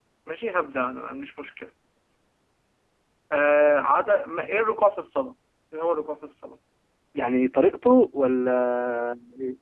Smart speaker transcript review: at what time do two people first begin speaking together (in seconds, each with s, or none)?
none